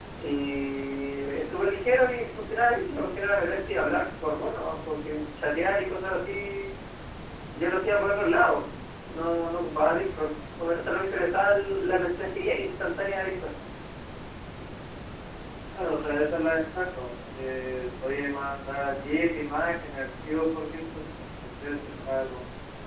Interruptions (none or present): none